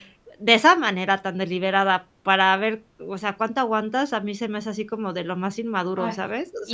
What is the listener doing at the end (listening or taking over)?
taking over